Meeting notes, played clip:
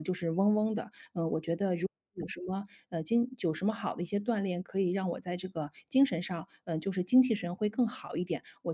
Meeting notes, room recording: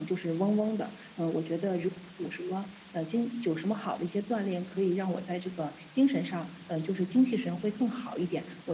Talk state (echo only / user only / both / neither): echo only